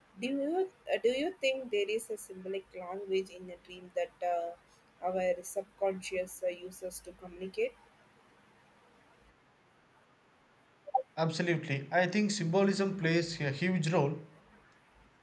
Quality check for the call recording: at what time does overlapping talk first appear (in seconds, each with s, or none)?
none